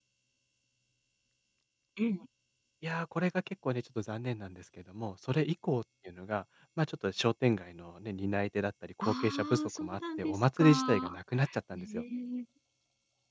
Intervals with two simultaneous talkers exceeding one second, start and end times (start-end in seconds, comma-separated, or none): 9.0-11.1